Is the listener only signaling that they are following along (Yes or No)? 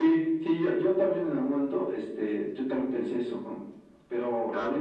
No